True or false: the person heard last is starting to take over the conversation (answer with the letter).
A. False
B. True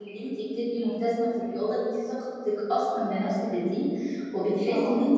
A